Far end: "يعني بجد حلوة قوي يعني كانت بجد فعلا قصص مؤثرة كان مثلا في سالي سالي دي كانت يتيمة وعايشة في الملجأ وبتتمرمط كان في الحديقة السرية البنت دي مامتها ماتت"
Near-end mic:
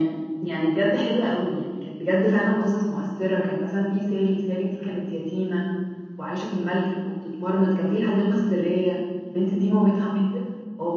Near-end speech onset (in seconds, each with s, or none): none